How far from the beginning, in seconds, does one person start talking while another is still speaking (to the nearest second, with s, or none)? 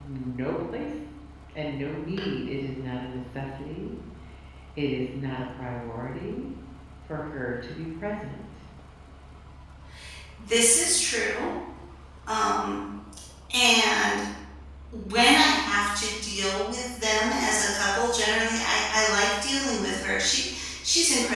none